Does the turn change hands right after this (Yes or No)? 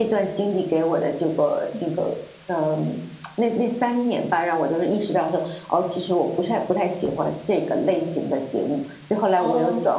Yes